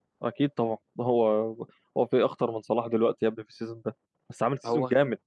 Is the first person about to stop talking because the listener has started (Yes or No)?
No